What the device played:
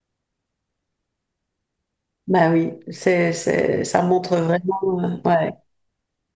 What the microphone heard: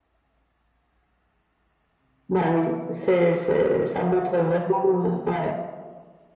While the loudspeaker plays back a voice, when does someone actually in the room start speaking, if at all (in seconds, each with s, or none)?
none